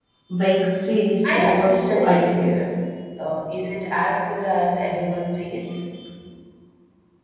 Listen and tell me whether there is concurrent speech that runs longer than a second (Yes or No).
Yes